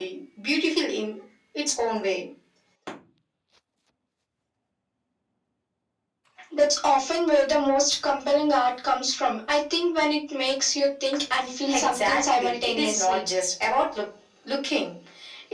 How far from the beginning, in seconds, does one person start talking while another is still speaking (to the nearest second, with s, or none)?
12 s